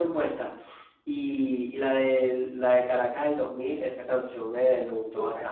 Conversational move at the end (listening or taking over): taking over